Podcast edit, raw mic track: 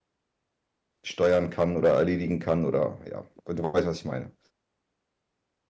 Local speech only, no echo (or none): steuern kann oder erledigen kann oder, ja, du weißt, was ich meine.